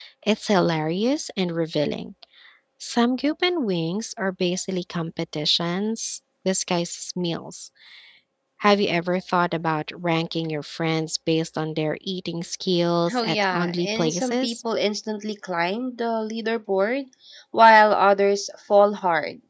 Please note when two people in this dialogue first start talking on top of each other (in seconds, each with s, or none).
13.1 s